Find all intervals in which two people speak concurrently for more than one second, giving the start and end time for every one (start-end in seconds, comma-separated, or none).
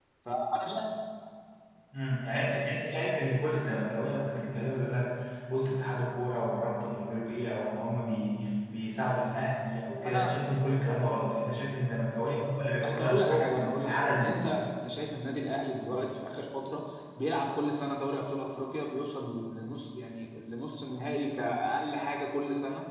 12.8-14.4